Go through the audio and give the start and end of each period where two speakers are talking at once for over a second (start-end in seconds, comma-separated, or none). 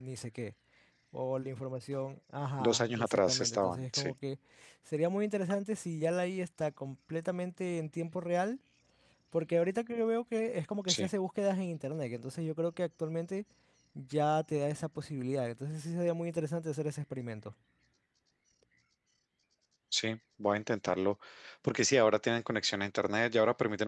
2.6-4.1